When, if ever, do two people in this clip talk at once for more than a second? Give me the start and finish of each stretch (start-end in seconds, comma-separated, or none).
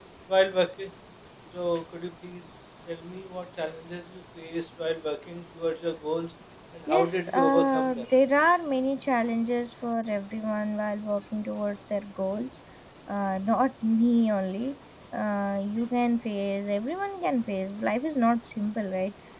6.9-8.1